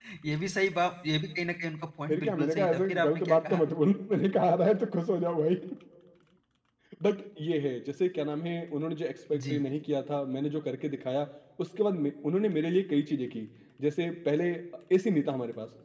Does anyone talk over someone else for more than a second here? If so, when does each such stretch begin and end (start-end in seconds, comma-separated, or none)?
2.1-3.6